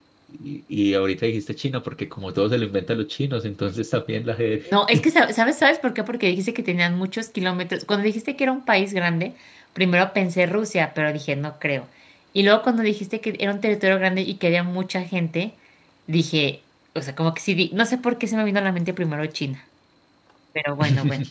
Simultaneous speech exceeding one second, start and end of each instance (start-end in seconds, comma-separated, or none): none